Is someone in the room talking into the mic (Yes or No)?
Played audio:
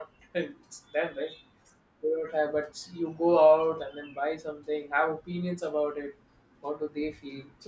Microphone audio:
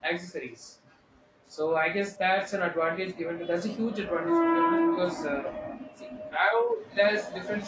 Yes